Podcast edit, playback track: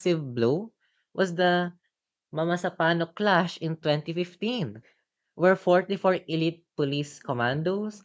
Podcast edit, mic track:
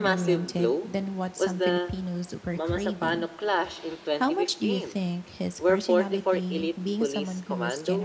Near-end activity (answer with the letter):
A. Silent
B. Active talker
B